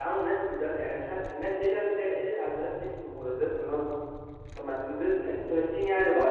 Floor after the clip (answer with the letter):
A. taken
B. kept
A